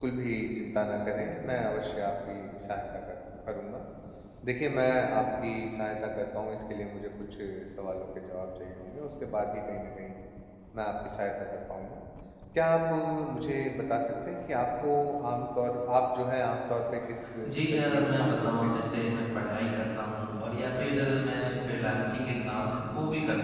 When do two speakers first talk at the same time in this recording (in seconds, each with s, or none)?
17.7 s